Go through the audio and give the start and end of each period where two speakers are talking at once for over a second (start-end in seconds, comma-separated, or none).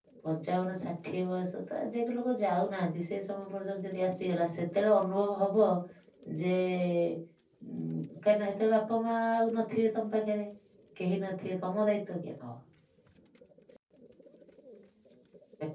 none